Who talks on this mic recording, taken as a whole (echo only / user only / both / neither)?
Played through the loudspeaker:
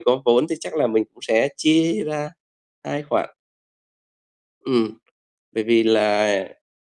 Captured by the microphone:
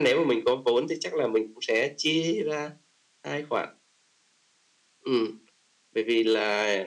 echo only